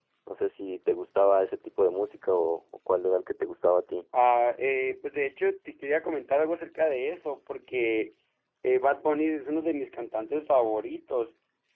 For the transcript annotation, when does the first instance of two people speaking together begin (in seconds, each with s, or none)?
none